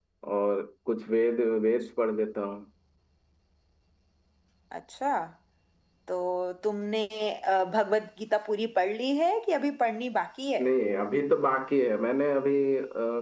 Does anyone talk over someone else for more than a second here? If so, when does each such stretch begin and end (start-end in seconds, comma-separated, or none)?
none